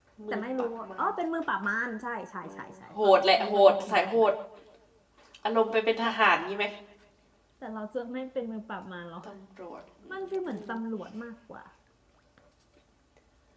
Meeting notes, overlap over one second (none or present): present